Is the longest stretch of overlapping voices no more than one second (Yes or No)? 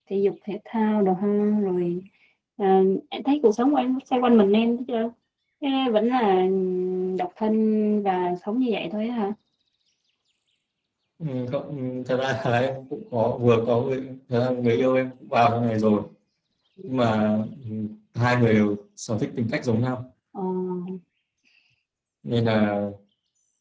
Yes